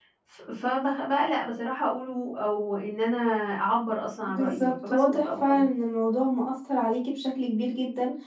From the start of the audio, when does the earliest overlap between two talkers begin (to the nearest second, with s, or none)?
4 s